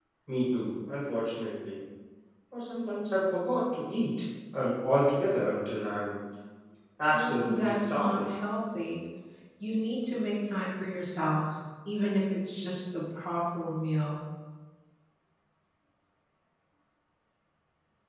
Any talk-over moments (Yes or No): Yes